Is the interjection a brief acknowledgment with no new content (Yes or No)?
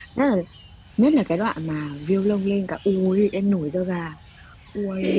No